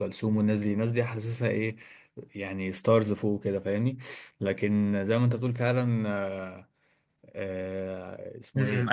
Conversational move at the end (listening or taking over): taking over